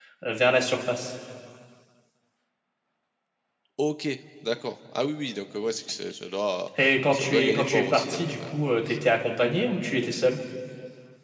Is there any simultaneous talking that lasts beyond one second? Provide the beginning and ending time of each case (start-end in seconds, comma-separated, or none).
7.1-8.5